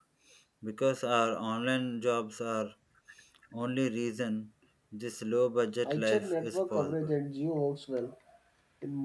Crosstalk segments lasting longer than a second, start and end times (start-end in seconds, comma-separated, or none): 5.9-7.1